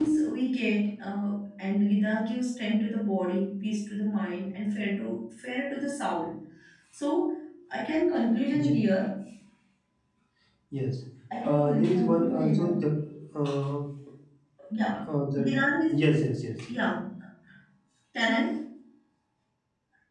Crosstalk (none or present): present